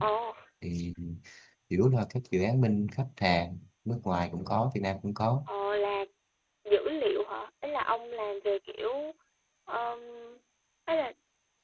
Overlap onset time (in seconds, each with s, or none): none